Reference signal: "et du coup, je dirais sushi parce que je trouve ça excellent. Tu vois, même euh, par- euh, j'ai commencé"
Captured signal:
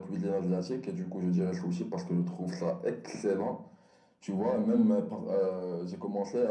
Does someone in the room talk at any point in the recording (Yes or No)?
No